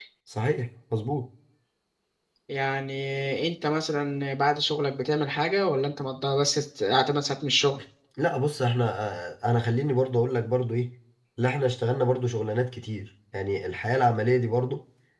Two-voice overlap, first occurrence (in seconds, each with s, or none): none